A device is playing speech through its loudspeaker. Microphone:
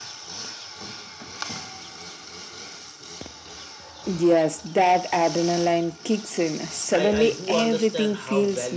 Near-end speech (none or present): present